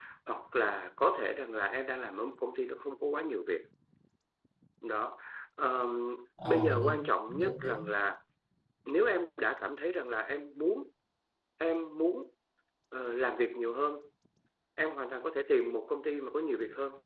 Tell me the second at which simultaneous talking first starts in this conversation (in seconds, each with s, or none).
6.5 s